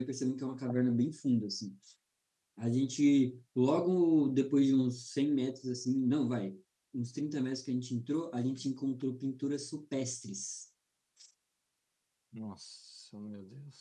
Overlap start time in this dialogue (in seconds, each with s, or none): none